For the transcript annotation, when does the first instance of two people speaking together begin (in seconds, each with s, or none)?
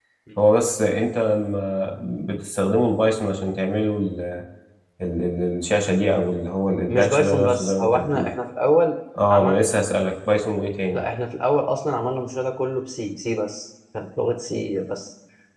6.9 s